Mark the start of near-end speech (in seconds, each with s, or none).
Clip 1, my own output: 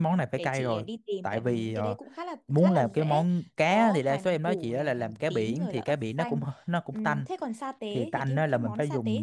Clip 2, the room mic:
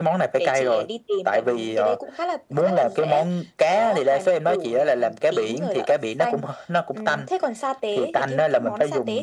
none